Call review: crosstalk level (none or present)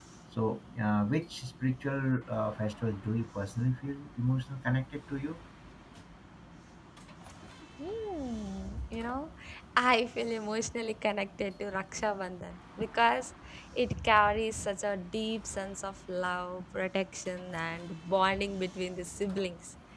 none